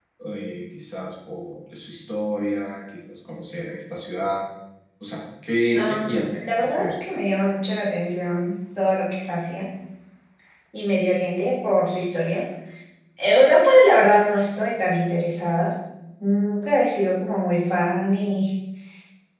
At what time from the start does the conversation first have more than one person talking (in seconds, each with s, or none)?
5.8 s